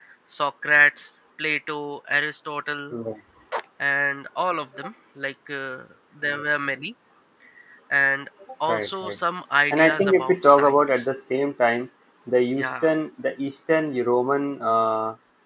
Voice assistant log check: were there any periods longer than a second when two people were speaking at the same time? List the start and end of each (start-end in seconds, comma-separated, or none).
9.7-11.0